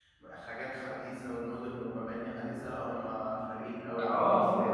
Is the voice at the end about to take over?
Yes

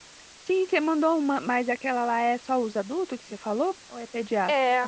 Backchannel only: No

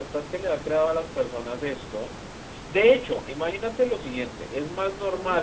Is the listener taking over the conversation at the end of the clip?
No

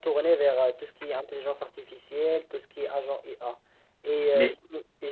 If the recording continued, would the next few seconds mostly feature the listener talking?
No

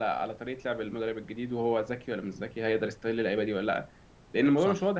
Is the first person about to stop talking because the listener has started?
No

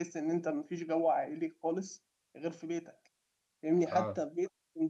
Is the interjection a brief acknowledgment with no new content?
Yes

